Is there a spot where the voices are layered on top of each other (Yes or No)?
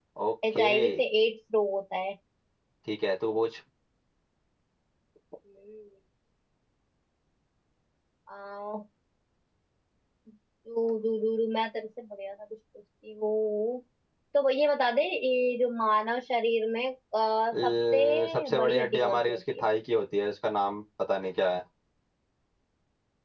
Yes